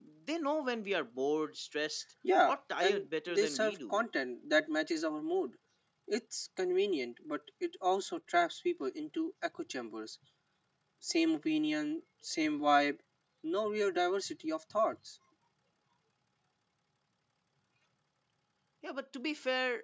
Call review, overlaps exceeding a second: present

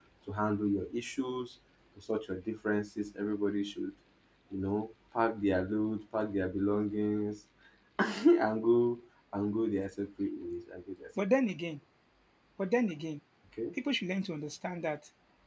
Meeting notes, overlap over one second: none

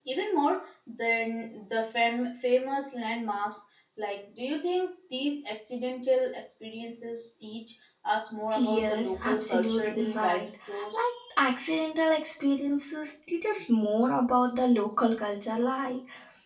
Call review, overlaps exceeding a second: present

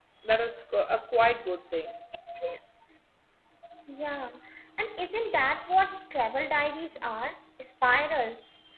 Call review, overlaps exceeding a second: none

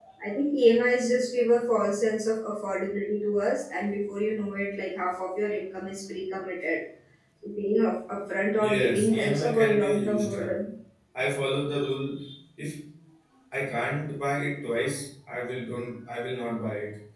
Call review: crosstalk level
present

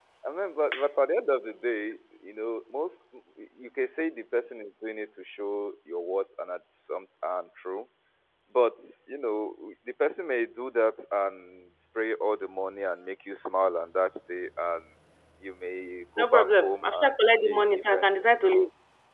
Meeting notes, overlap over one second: present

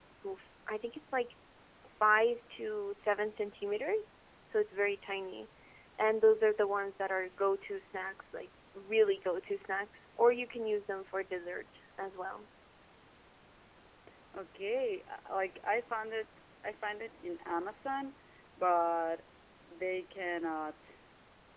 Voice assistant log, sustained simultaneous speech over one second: none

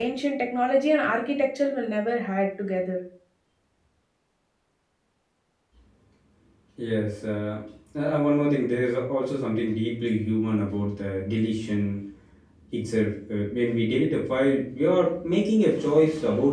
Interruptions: none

